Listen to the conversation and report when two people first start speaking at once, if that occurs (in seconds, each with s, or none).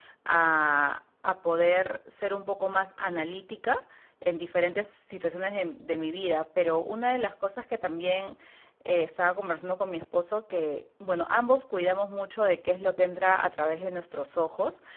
none